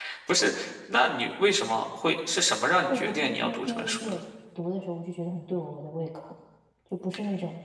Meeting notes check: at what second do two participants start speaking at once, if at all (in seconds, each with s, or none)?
2.9 s